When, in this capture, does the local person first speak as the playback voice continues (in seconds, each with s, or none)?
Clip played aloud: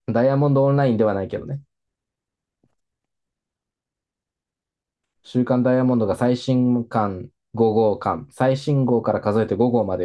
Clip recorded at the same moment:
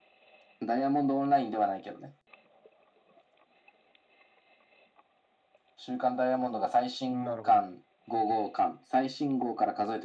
7.1 s